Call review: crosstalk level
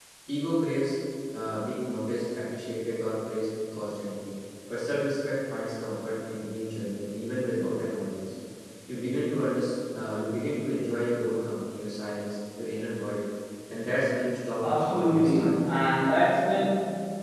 present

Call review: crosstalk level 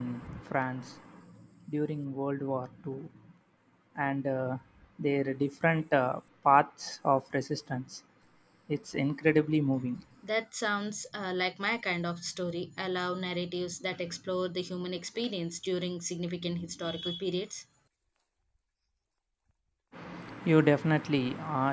none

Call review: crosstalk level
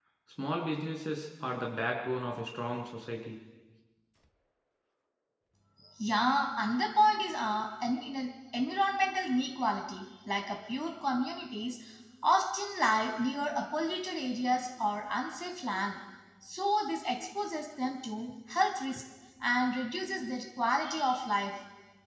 none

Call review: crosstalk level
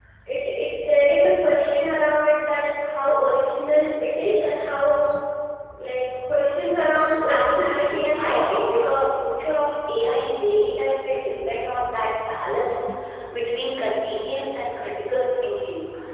present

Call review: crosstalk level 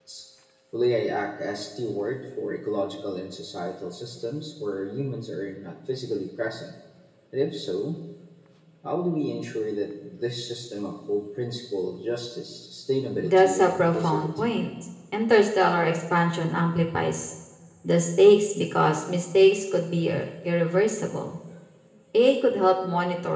present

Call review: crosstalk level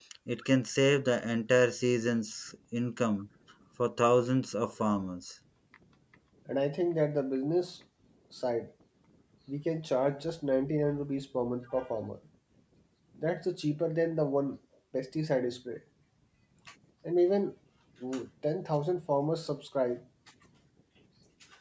none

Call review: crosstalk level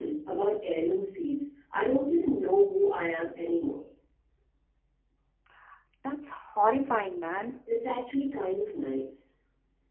none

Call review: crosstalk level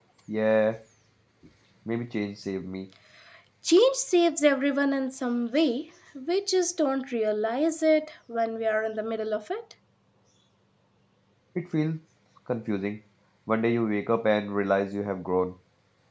none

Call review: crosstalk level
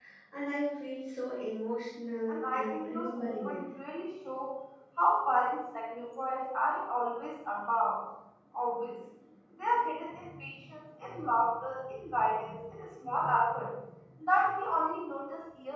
present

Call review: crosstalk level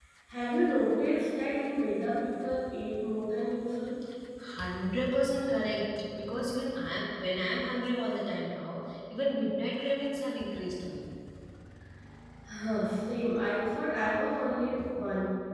none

